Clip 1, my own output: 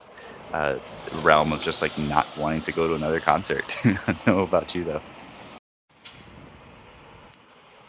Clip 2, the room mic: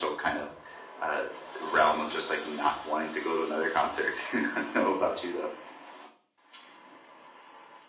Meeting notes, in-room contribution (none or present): none